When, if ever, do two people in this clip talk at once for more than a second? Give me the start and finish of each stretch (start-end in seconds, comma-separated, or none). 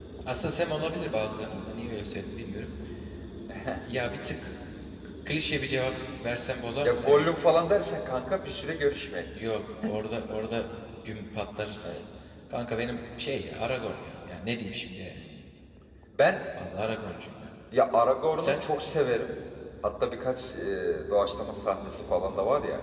none